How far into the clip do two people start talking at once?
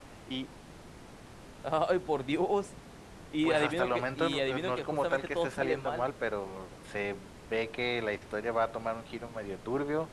3 s

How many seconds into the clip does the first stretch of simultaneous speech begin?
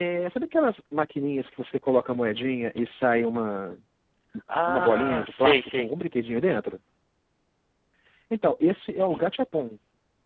5 s

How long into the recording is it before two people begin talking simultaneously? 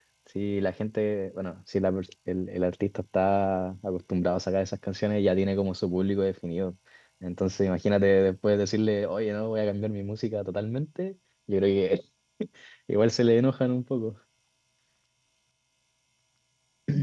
none

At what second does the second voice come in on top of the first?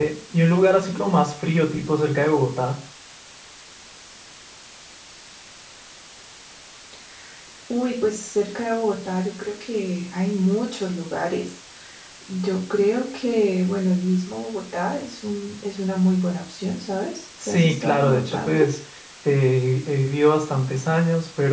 17 s

